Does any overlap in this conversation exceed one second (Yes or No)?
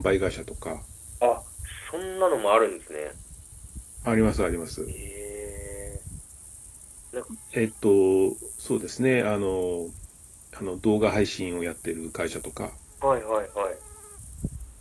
No